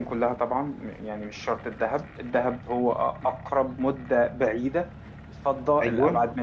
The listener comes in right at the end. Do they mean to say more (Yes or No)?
No